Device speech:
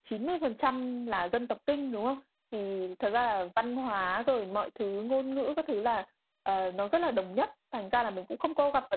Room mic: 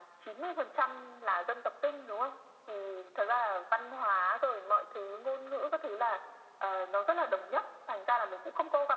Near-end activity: none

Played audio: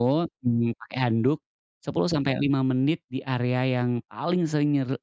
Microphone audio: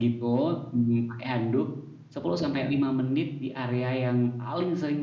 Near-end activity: none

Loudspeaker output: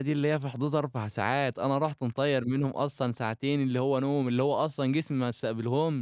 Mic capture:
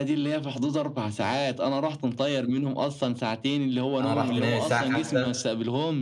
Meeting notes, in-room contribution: present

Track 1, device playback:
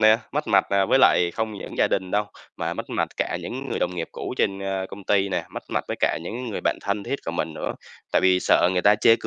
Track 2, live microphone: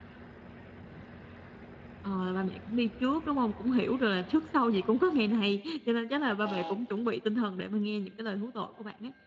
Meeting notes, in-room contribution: present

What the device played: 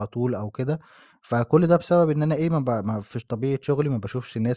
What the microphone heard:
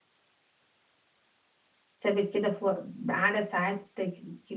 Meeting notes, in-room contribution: present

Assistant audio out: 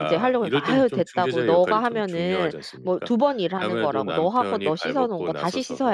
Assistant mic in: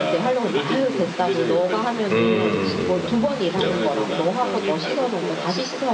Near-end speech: present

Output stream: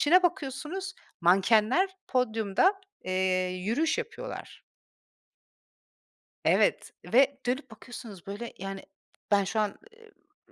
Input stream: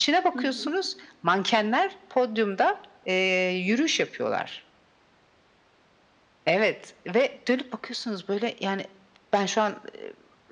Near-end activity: present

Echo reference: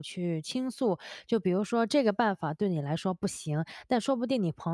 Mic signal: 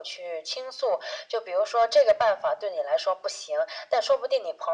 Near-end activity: none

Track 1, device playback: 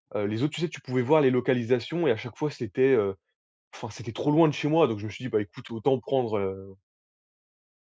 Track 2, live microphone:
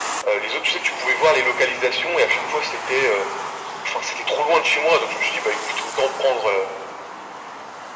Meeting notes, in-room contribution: none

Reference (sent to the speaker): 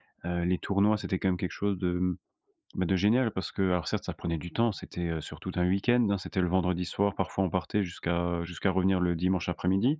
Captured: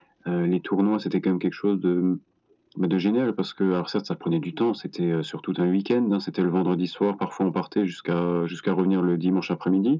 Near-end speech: none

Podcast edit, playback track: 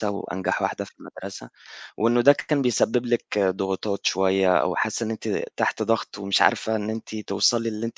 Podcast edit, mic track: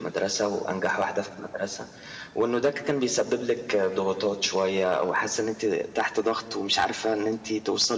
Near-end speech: none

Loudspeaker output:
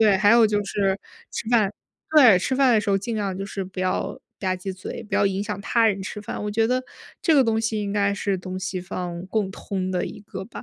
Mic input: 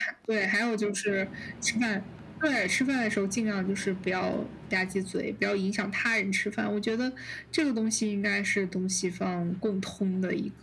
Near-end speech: none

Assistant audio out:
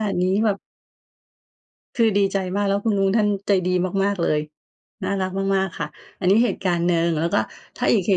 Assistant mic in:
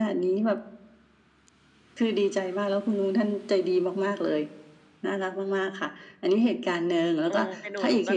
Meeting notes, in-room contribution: present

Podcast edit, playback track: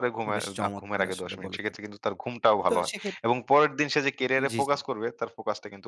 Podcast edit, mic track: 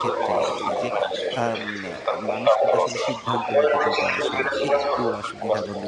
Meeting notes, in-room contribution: present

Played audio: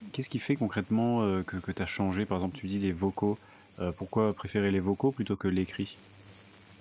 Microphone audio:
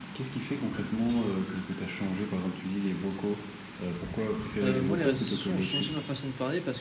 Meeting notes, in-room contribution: present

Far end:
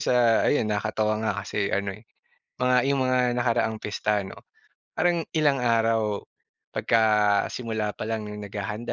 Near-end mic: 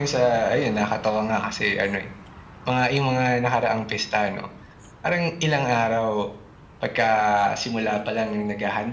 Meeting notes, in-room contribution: none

